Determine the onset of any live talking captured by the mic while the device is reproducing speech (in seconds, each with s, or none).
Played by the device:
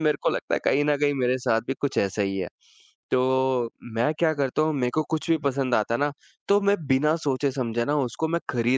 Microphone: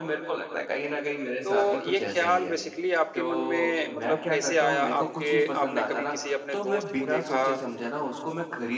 1.4 s